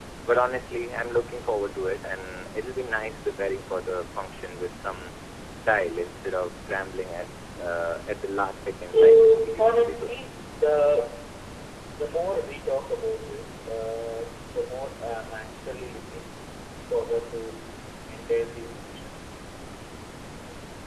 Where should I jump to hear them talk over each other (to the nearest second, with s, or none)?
9 s